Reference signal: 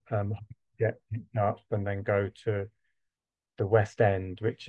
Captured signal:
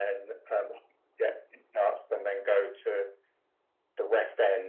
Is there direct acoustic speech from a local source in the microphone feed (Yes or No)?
No